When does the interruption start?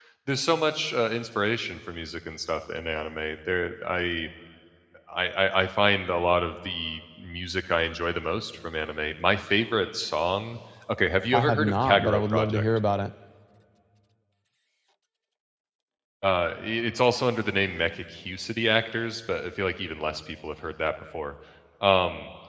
11 s

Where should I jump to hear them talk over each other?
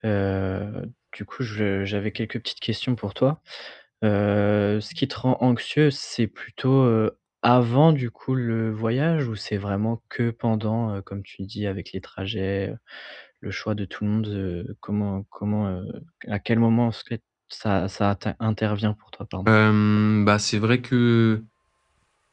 none

